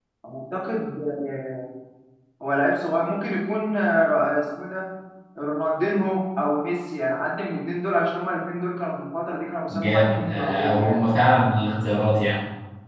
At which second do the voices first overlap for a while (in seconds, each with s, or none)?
9.7 s